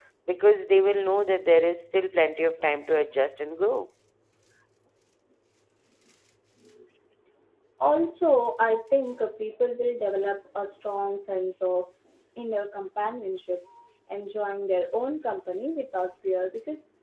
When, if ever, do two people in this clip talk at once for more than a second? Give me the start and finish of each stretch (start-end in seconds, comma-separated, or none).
none